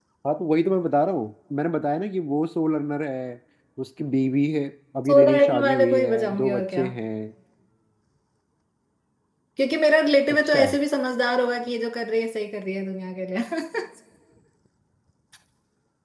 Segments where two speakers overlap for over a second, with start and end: 5.1-6.8

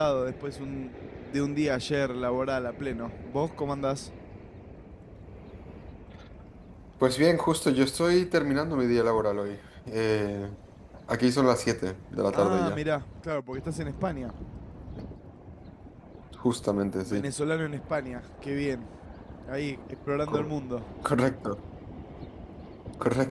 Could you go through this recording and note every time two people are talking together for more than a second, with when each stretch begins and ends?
none

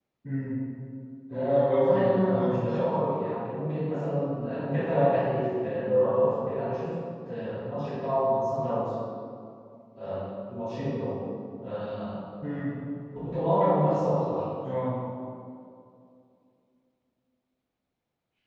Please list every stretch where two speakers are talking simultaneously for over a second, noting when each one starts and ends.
1.3-2.8

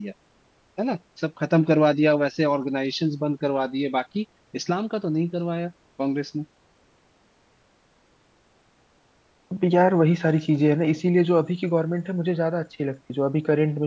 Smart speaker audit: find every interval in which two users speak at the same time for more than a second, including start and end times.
none

